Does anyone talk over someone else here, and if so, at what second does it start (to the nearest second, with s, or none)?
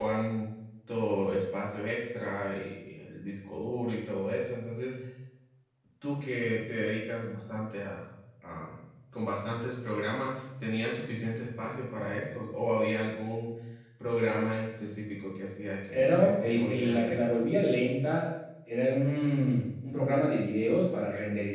16 s